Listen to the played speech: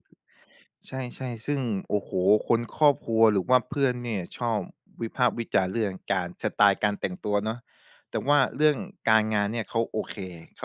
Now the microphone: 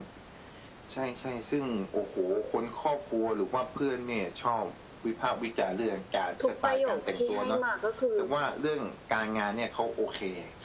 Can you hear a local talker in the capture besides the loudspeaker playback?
Yes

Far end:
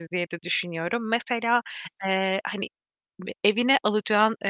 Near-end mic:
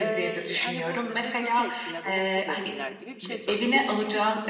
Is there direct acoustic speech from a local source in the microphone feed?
Yes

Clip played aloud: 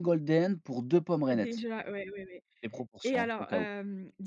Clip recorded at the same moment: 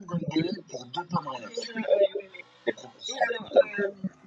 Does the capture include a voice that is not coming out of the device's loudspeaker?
No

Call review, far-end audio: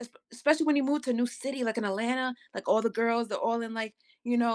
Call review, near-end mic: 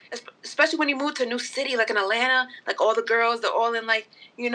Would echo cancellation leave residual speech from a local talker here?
No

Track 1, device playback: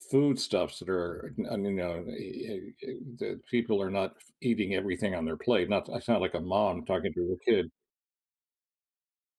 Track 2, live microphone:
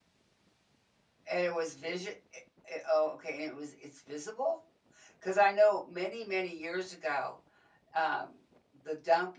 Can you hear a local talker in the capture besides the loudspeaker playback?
Yes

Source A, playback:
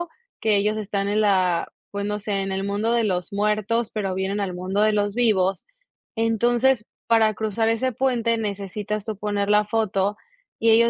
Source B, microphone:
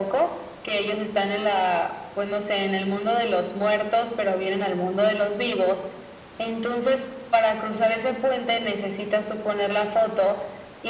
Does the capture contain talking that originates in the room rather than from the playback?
No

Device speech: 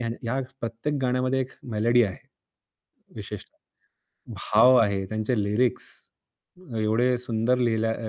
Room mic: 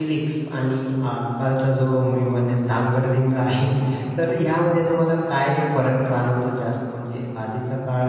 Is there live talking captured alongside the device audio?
Yes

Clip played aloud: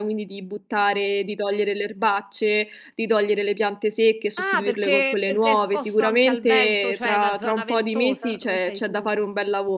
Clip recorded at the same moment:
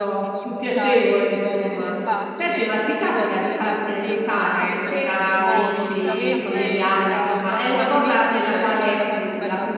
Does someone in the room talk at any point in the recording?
Yes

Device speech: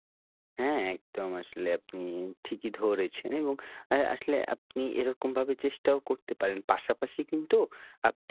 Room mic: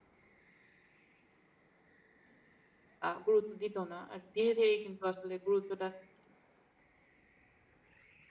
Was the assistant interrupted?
Yes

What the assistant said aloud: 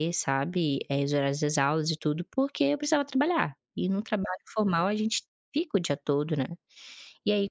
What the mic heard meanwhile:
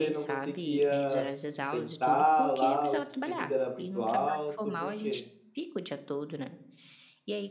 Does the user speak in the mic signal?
Yes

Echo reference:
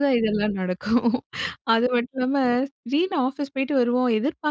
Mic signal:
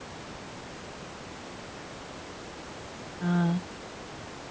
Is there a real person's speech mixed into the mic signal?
Yes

